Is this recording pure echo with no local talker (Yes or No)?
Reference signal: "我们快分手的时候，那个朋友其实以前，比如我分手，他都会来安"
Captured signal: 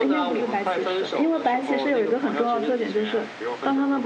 No